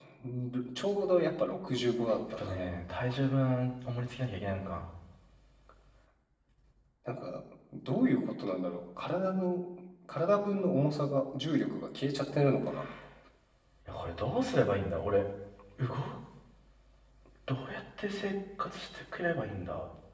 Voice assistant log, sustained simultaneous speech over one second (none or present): none